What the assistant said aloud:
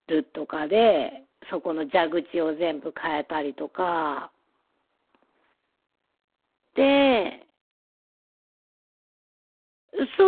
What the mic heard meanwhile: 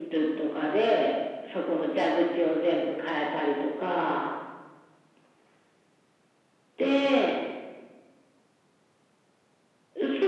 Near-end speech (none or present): none